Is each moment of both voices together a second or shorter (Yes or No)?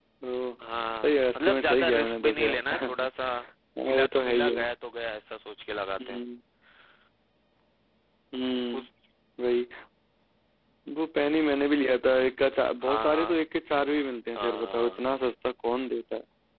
No